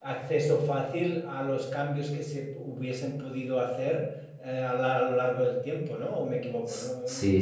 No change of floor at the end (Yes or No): No